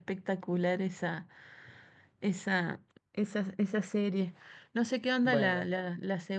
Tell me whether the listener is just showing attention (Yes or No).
Yes